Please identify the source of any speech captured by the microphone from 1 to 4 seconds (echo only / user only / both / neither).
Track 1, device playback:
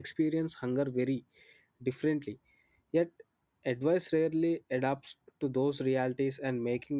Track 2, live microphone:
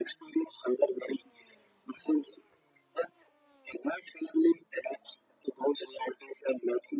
echo only